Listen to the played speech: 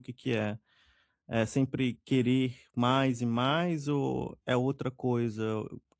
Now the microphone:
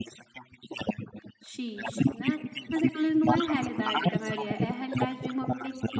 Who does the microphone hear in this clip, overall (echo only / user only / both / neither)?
both